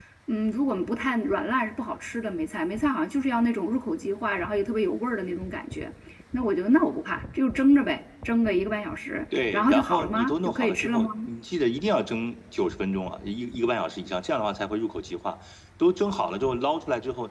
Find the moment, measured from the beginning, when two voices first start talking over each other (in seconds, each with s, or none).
9.3 s